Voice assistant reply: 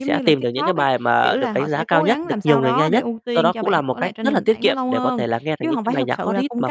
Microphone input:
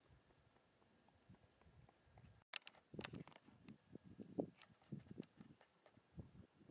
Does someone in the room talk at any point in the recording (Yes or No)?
No